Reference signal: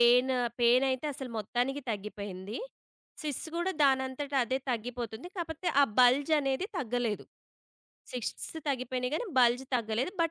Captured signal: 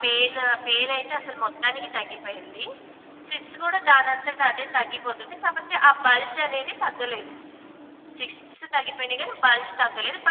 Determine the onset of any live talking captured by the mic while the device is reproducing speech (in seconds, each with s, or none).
none